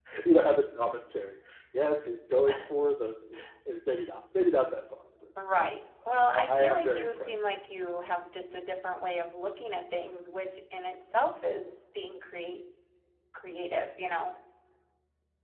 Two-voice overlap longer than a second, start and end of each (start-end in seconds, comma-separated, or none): 6.1-7.4